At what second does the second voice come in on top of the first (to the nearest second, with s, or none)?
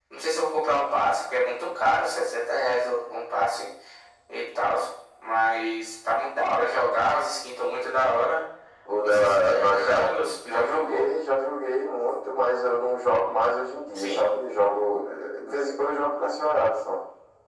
9 s